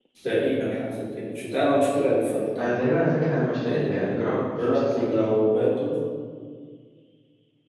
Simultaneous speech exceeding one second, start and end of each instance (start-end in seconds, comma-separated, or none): 3.7-5.3